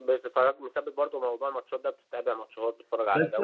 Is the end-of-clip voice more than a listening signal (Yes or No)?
Yes